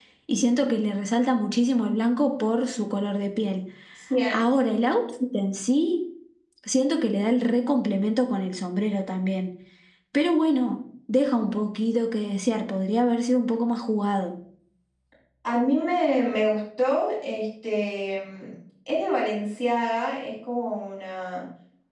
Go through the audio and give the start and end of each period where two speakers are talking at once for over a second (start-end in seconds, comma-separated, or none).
none